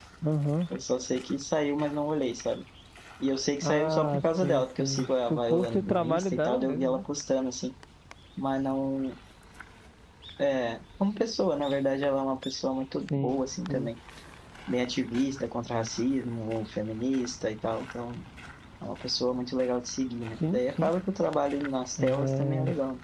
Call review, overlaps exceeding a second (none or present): present